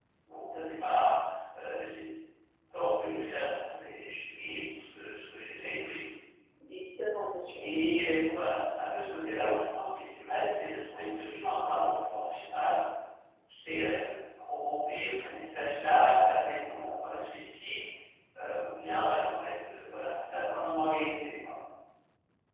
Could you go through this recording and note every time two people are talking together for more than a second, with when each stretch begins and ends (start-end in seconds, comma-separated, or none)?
none